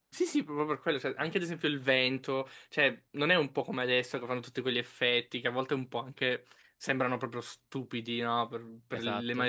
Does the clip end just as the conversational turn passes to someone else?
No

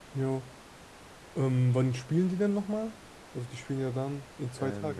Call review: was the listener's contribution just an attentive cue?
No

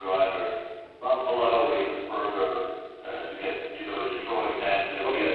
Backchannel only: Yes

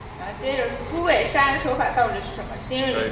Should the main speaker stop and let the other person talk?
Yes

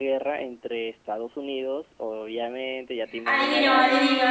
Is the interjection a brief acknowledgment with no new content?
No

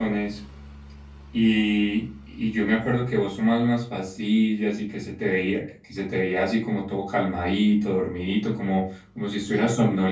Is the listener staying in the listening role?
Yes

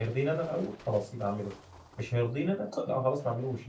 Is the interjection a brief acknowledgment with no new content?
Yes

